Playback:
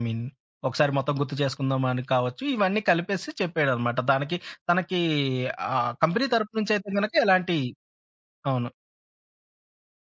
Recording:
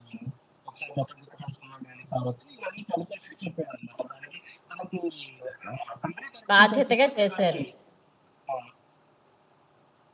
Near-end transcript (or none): బాధ్యతగా చేశారు.